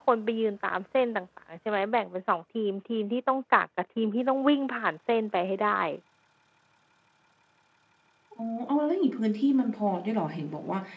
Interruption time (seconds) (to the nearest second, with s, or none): none